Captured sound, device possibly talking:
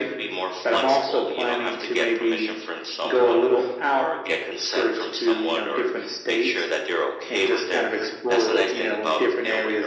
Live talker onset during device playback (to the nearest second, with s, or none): none